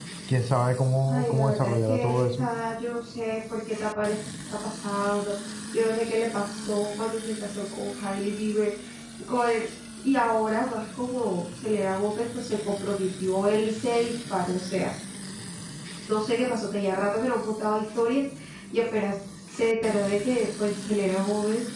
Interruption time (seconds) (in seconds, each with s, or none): 1.1 s